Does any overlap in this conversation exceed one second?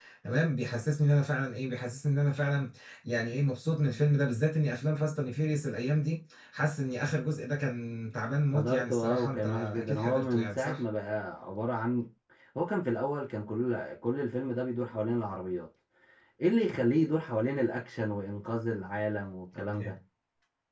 Yes, from 8.5 s

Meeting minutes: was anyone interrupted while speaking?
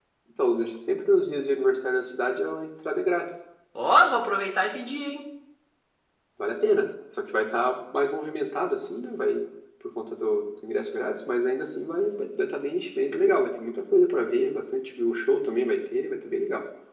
No

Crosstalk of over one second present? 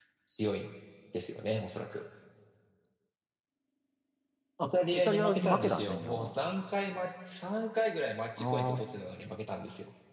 Yes, from 4.6 s

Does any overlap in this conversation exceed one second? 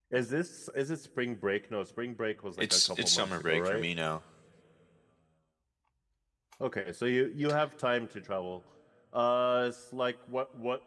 Yes, from 2.6 s

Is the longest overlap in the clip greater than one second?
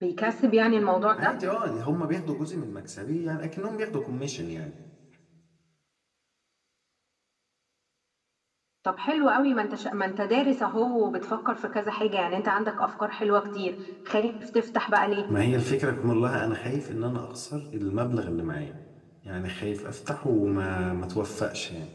No

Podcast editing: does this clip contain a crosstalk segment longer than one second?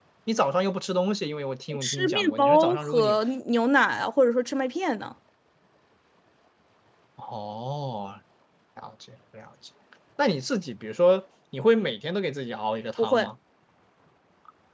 Yes, from 1.8 s

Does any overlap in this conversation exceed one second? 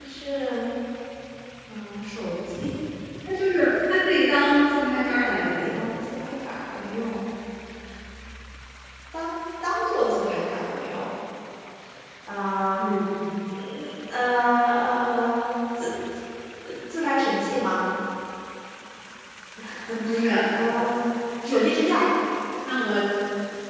No

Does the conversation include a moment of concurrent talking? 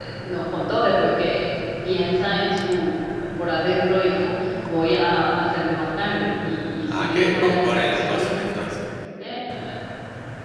Yes, from 6.9 s

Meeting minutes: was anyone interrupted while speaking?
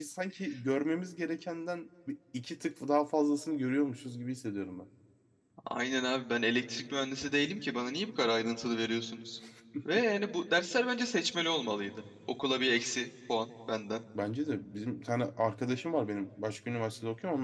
No

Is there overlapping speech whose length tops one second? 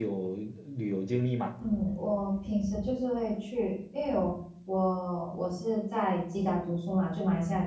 No

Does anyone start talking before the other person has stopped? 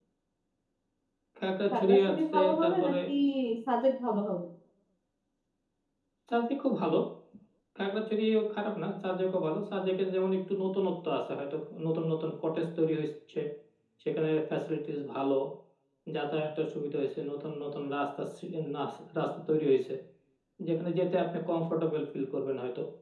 Yes, from 1.7 s

